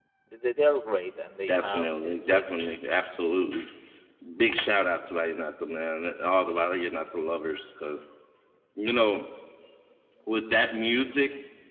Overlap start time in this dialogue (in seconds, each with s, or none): 1.4 s